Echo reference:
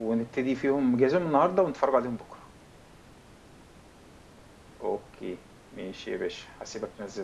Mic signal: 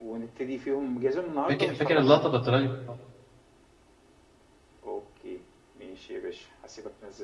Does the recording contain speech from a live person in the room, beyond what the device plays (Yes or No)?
Yes